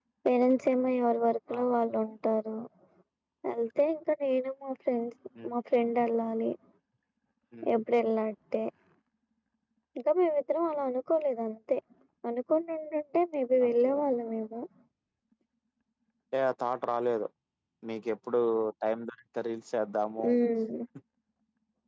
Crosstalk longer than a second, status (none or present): none